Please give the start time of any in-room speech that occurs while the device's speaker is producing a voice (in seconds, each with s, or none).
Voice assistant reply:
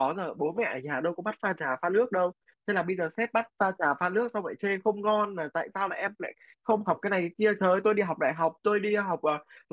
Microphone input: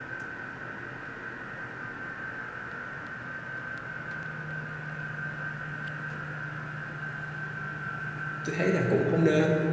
8.4 s